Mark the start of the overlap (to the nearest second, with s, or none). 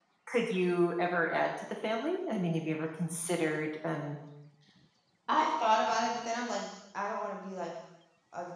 none